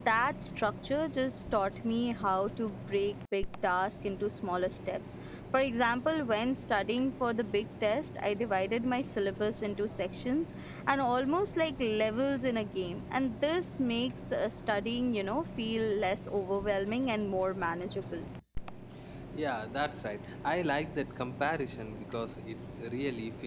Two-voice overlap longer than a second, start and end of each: none

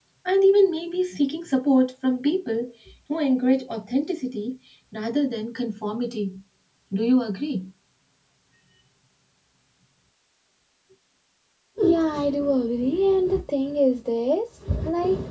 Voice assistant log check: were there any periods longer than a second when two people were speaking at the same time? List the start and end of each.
none

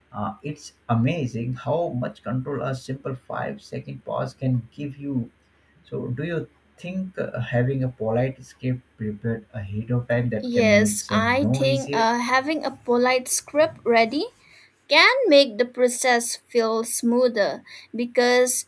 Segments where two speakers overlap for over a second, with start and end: 10.4-12.1

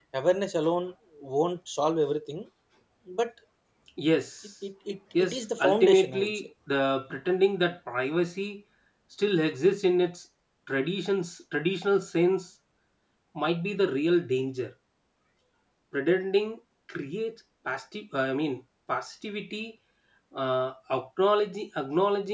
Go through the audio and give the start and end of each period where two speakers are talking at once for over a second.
5.2-6.5

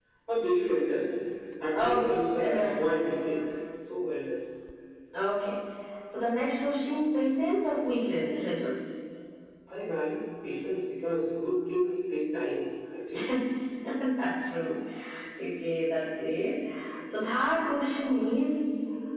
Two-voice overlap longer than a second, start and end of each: 1.7-3.0

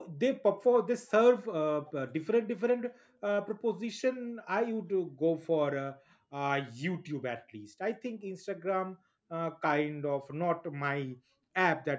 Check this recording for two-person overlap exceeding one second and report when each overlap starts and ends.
none

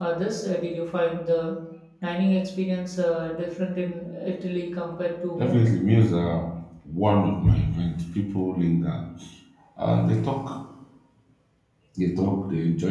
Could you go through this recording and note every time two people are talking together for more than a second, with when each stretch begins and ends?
none

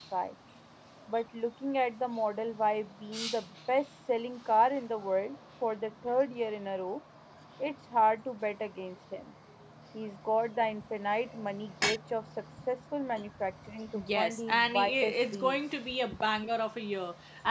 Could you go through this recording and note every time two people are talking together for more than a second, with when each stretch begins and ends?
14.2-15.6

